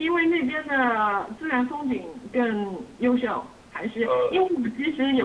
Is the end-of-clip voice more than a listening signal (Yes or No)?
No